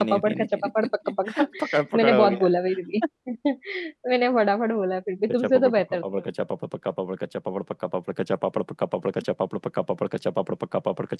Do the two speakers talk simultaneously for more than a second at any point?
Yes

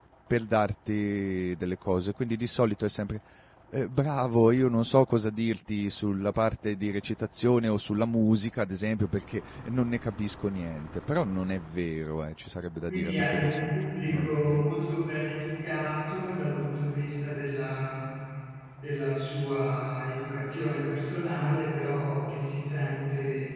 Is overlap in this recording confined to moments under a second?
No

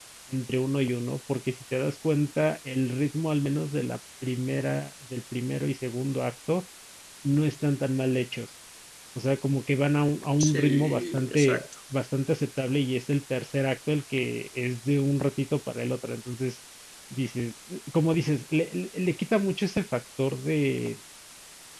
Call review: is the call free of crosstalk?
No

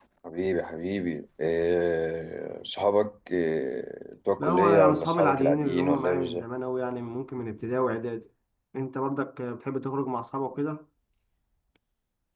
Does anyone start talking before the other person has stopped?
Yes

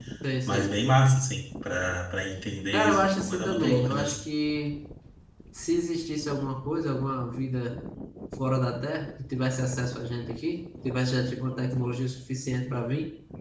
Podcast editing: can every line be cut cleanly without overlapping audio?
No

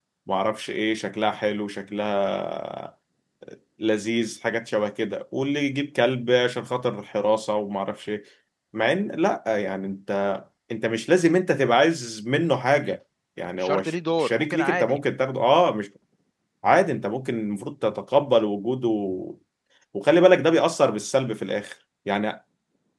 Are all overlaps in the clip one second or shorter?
No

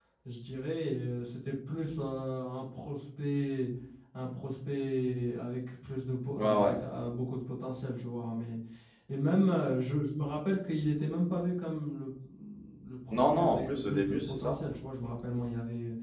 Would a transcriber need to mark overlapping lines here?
Yes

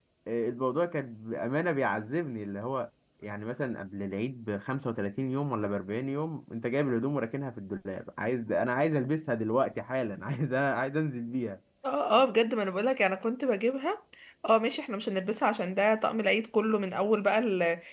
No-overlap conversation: Yes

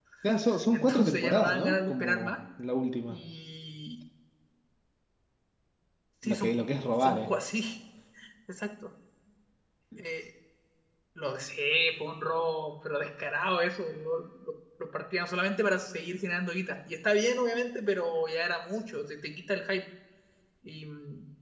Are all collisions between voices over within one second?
No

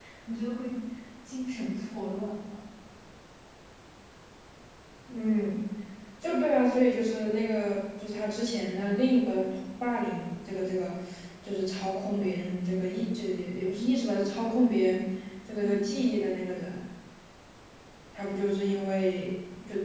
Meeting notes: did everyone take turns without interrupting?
Yes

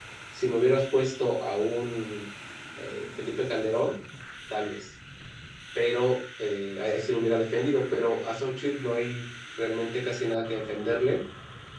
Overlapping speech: No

